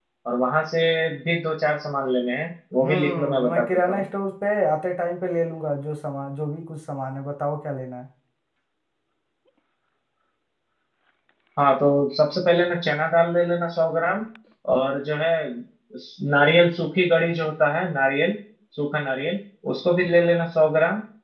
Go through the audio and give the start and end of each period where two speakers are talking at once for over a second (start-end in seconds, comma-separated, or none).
2.8-4.0